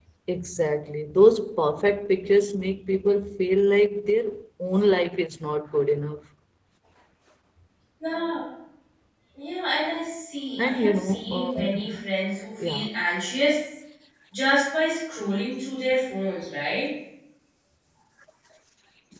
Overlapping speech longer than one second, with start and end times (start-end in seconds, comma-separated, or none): 10.6-12.0